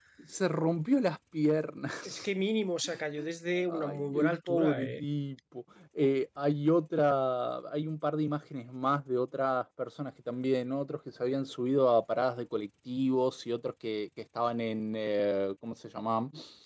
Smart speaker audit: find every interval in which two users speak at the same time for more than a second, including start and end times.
3.7-4.9

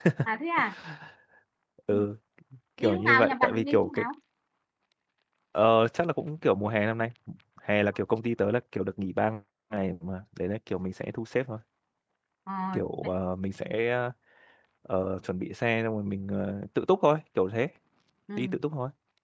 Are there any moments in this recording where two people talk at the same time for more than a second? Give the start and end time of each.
2.8-4.0

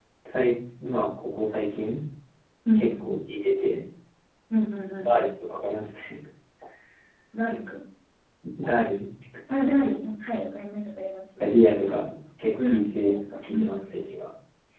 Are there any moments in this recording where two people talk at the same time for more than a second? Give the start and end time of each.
12.6-13.8

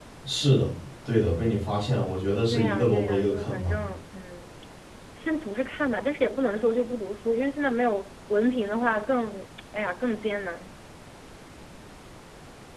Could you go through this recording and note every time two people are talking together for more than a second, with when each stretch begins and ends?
2.5-3.7

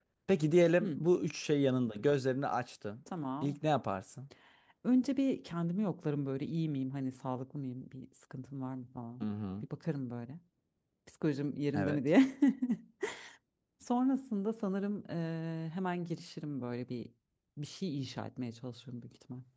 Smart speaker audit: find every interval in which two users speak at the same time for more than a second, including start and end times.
none

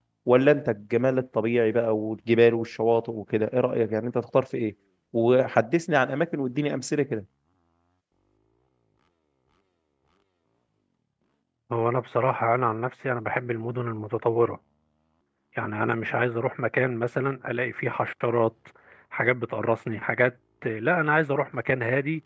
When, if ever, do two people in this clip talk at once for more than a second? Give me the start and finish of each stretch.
none

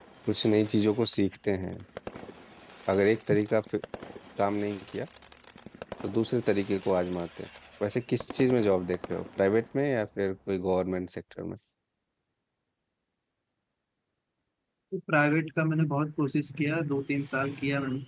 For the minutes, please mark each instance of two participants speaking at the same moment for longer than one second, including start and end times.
none

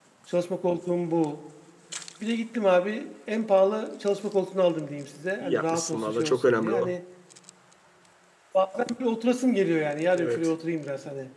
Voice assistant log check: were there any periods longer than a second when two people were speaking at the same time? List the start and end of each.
5.4-6.9

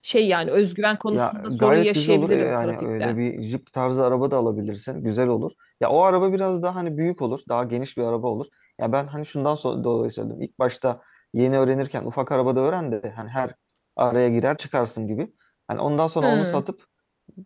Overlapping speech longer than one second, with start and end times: 1.1-3.1

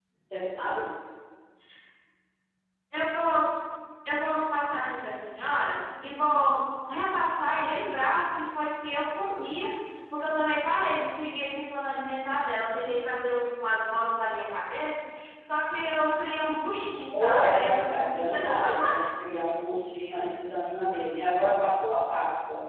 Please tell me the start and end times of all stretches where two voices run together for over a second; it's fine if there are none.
17.1-18.8

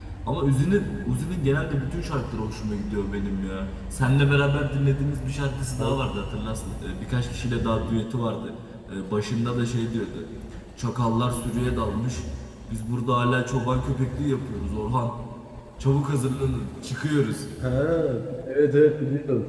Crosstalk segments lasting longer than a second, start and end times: none

